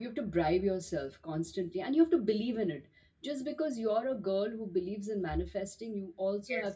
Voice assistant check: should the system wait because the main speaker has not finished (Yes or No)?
Yes